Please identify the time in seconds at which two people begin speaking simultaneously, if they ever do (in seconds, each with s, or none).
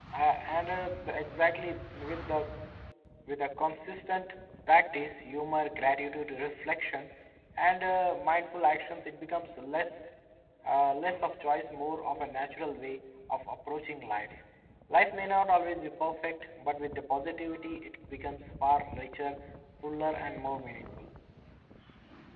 none